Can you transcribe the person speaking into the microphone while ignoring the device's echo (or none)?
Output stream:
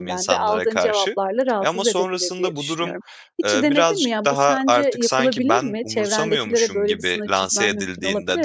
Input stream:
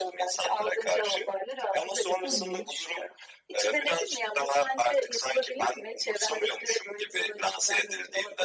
Tamam.